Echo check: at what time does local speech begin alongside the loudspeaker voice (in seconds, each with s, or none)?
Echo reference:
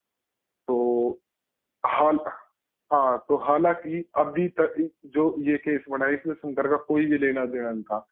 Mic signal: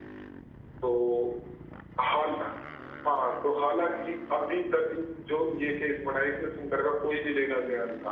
none